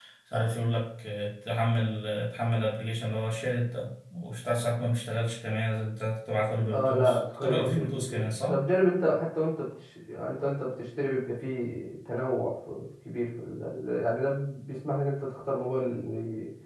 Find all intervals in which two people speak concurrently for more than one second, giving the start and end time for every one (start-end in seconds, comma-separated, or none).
6.7-8.6